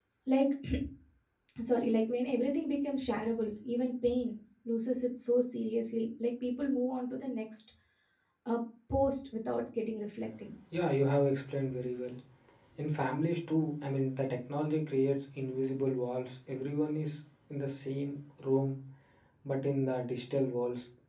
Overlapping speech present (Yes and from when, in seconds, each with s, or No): No